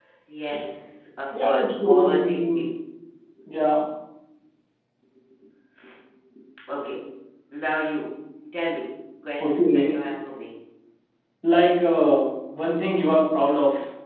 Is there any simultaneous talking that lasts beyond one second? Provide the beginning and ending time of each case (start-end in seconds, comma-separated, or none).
1.4-2.6